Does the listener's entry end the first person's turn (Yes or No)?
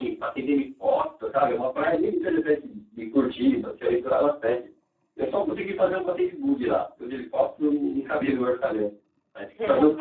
No